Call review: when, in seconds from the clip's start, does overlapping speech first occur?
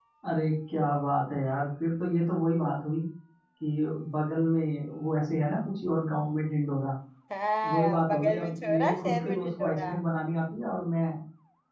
8 s

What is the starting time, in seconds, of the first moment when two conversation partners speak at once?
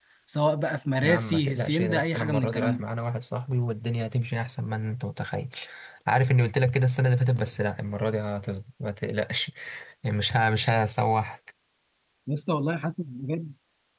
1 s

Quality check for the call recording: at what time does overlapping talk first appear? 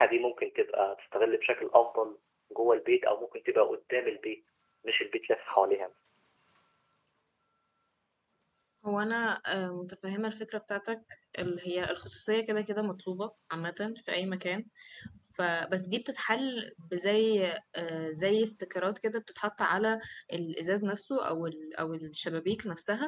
none

